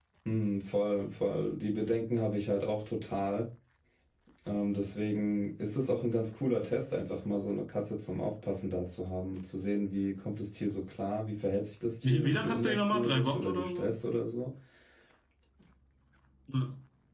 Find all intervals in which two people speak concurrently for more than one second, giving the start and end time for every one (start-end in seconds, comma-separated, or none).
12.0-13.9